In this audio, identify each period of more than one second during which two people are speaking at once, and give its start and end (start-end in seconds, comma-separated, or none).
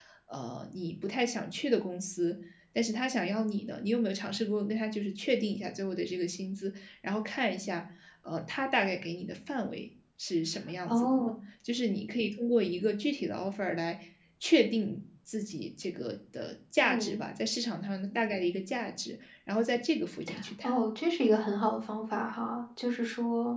none